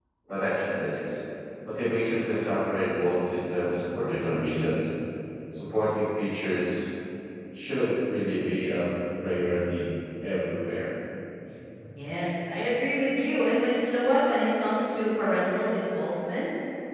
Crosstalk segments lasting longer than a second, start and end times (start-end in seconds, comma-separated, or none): none